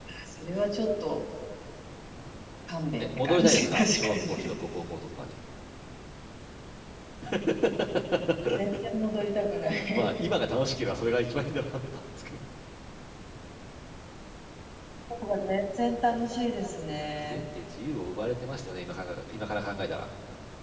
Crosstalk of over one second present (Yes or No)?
Yes